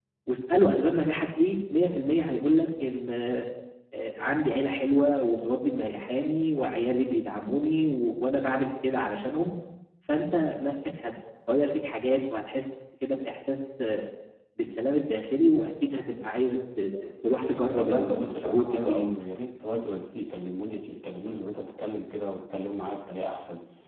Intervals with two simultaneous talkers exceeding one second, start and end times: 17.8-19.1

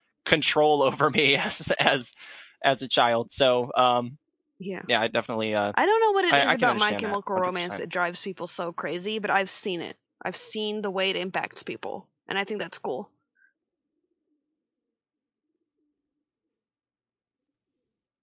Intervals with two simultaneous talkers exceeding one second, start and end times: 6.3-7.8

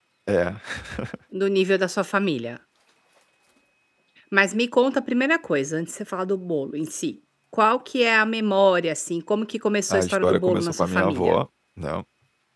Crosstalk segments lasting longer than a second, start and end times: 9.9-11.3

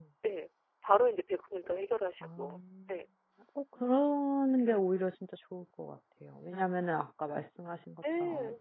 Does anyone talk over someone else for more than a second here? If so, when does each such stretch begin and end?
none

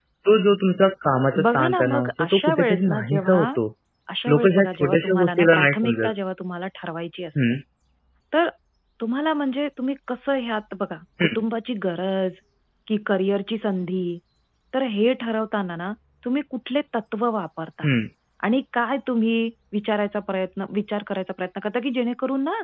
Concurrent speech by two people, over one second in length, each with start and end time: 1.5-3.5, 4.3-6.1

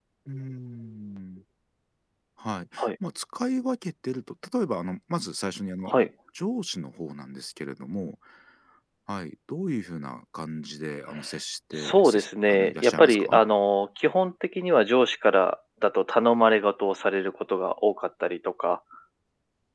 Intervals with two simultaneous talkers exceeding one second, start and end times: 11.8-13.4

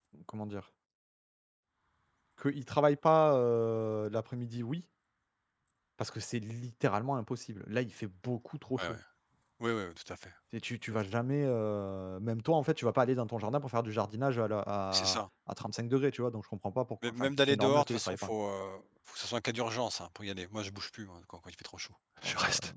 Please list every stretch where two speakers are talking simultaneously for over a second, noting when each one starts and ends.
17.0-18.3

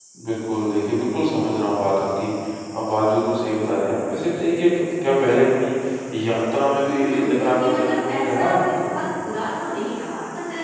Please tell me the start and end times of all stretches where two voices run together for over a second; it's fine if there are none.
6.8-9.1

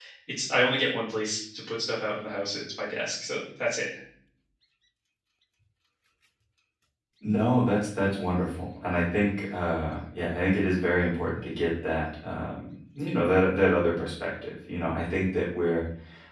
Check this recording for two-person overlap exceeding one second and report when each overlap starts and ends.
none

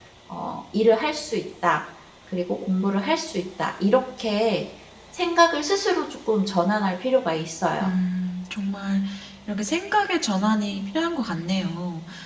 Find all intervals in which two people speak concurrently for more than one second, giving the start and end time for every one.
none

